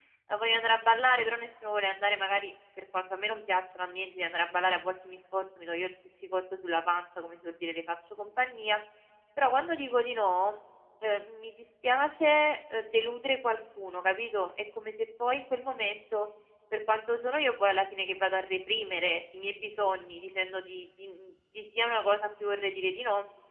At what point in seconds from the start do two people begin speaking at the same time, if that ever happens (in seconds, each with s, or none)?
none